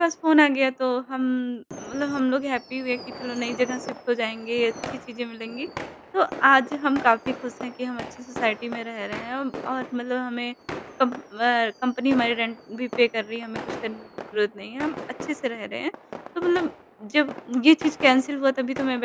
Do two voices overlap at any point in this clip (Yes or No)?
No